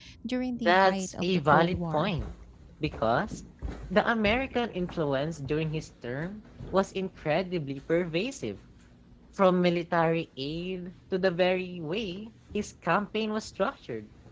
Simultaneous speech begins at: 1 s

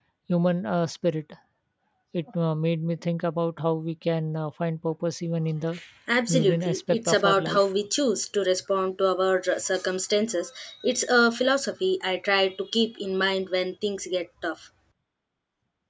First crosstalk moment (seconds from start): 6 s

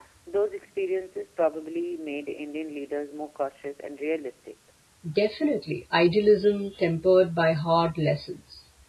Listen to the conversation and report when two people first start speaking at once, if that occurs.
none

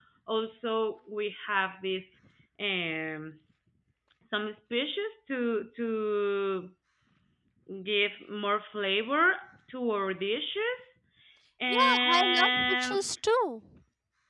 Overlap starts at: 12 s

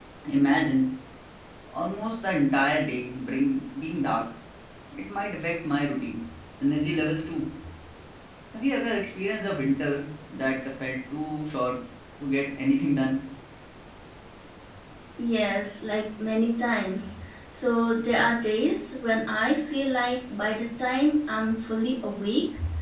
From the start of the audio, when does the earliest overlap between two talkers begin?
none

